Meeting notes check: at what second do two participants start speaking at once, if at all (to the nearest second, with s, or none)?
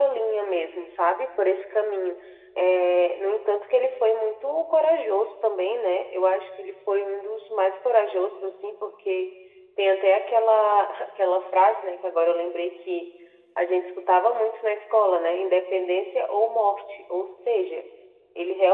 none